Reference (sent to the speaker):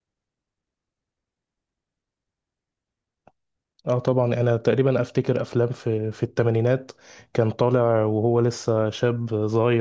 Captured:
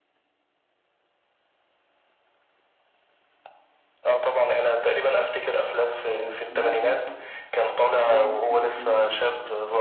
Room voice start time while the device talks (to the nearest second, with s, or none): 6 s